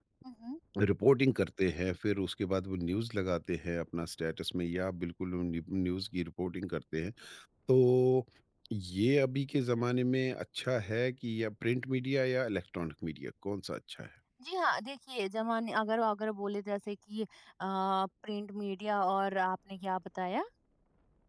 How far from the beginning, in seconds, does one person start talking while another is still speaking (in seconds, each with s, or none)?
none